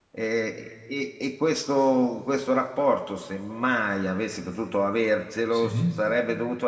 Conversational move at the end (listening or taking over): listening